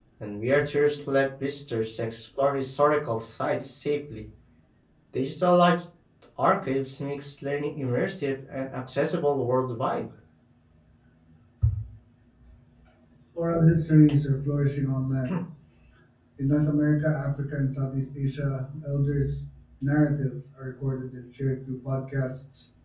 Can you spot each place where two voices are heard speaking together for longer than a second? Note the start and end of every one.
none

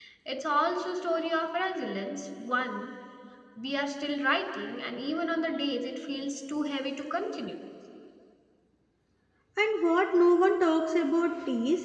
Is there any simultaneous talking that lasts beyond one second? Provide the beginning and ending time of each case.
none

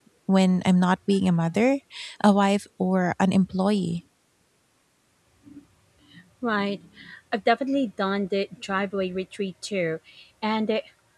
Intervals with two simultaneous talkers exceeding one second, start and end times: none

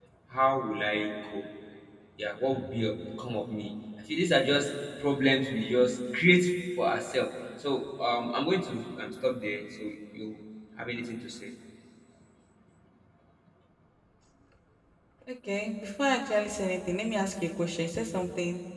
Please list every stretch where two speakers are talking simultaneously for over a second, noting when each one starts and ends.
none

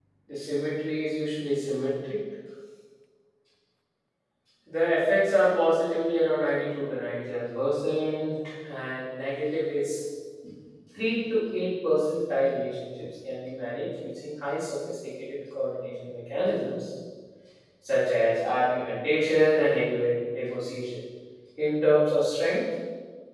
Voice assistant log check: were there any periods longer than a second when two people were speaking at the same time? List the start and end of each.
none

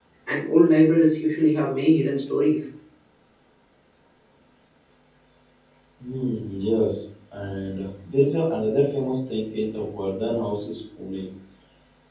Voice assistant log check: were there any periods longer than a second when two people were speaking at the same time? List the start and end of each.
none

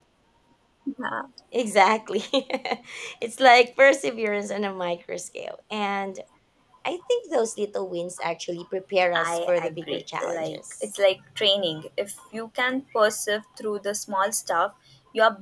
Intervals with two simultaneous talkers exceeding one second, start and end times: 9.1-10.9

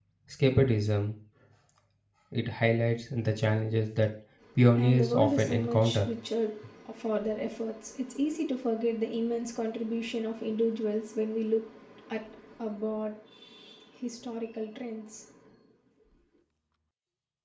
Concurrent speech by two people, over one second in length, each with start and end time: 4.7-6.1

